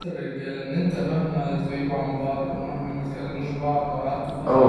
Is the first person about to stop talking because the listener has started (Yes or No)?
Yes